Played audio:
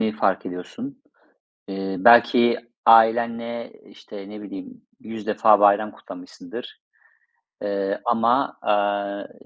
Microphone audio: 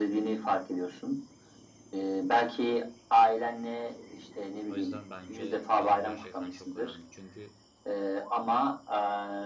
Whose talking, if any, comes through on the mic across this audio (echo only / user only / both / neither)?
both